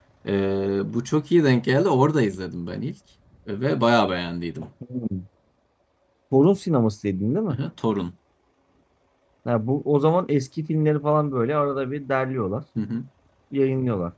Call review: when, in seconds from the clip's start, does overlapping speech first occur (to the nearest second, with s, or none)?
none